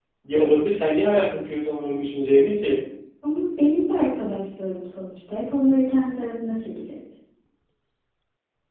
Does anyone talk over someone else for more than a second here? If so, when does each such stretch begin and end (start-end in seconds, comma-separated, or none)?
none